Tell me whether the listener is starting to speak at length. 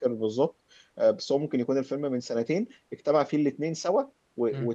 No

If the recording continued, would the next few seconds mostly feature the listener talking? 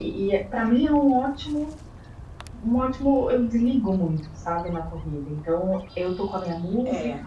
No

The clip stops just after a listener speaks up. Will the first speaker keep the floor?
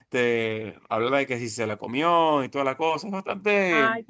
No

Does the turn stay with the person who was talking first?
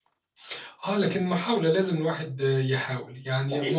No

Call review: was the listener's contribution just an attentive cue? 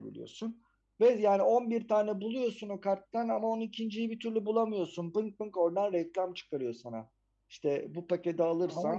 Yes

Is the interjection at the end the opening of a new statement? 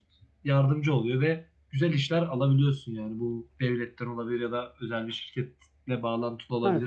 Yes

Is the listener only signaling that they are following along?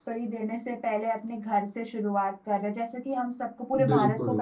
Yes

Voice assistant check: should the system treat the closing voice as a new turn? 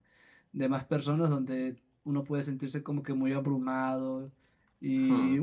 No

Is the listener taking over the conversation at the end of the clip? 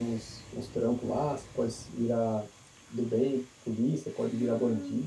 Yes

